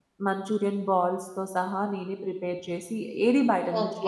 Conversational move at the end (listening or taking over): taking over